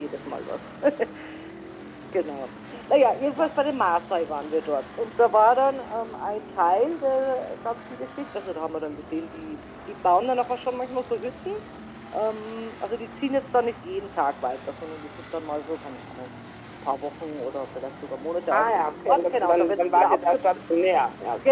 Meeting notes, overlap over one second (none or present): present